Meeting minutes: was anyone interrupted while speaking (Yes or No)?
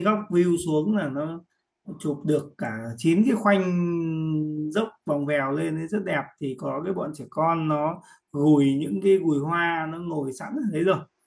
No